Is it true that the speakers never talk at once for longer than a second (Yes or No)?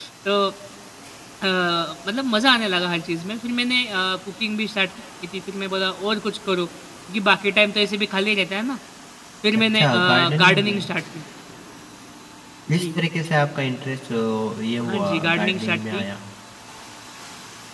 No